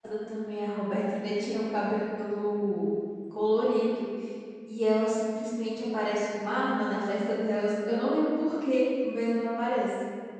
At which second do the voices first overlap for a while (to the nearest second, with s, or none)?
none